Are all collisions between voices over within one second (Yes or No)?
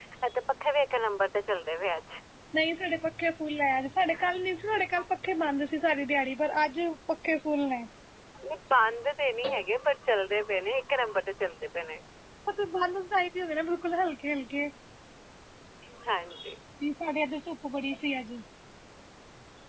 Yes